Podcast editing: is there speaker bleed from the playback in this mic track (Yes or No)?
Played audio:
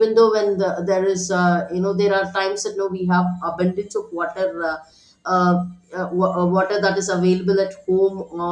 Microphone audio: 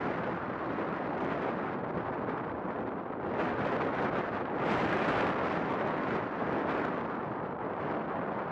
No